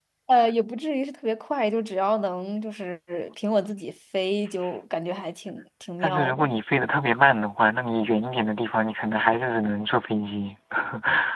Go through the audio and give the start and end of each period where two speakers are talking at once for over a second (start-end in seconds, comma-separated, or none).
none